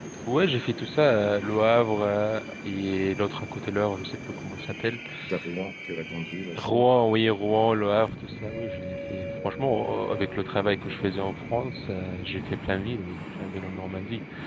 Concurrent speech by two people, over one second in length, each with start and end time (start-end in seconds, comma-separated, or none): none